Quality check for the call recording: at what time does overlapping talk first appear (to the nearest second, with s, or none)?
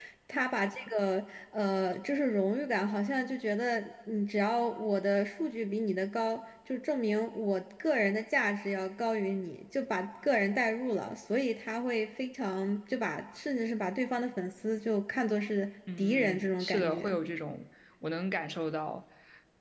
16 s